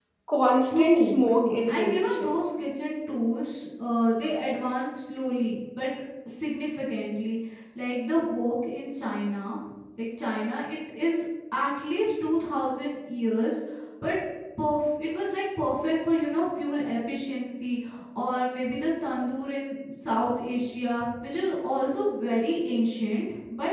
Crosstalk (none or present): present